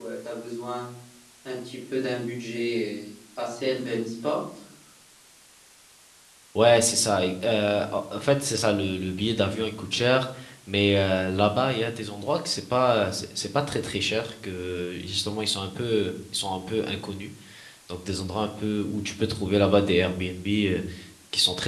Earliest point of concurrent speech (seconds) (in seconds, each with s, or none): none